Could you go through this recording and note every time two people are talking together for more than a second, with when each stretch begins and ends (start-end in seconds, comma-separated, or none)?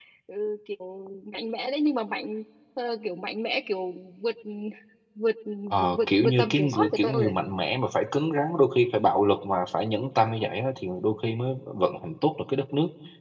6.0-7.3